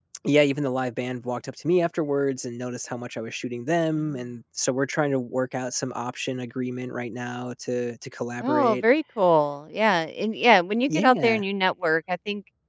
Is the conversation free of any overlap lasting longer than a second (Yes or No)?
Yes